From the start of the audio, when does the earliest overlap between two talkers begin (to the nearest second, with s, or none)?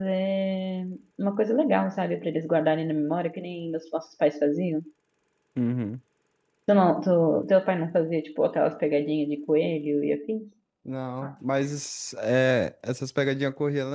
none